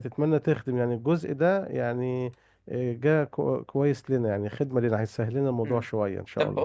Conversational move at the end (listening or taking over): taking over